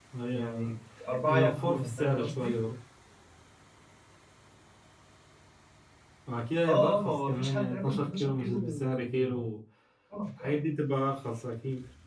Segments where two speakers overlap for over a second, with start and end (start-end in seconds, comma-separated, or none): 1.2-2.6, 6.7-9.5